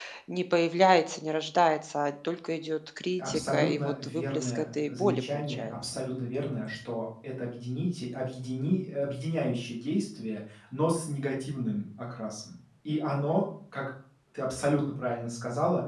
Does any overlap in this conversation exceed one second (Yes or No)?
Yes